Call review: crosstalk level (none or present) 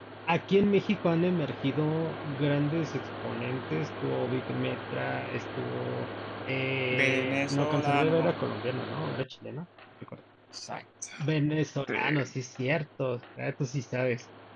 present